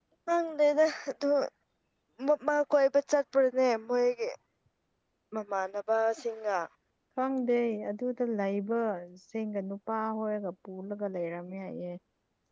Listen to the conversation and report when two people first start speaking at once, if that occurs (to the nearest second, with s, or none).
none